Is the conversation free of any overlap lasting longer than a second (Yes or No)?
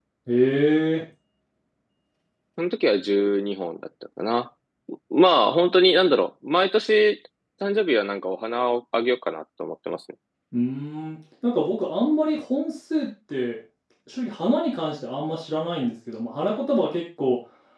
Yes